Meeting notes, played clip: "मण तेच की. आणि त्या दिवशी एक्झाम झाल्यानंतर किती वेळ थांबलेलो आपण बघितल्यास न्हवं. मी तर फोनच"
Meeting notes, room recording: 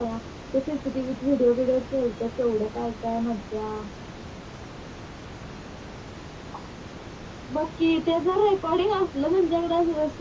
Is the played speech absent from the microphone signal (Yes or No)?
Yes